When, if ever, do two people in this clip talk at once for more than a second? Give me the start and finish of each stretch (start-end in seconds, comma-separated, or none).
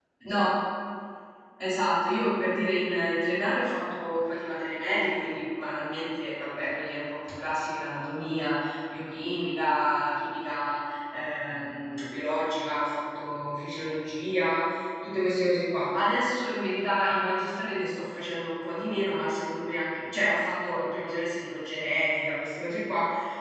none